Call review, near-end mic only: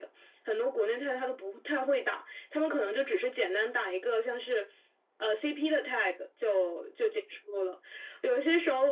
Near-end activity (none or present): none